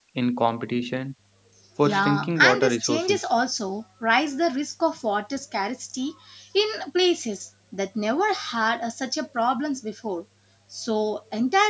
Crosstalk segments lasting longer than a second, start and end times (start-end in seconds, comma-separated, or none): 1.8-3.2